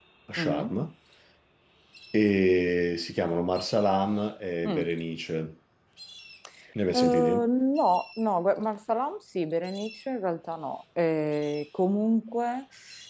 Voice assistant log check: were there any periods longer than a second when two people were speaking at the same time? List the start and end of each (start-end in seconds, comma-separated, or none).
none